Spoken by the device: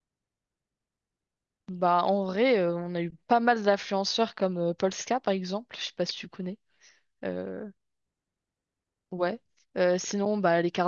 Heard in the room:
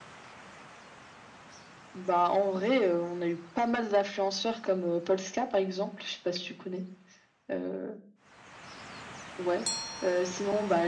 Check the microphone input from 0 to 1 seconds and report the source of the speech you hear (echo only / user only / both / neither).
neither